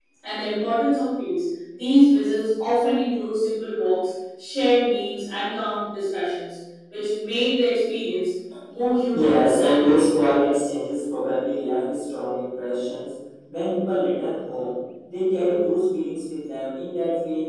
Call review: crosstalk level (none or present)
present